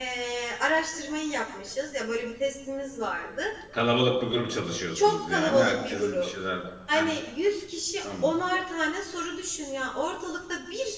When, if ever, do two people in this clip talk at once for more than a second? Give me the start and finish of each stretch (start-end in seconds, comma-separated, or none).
4.9-6.3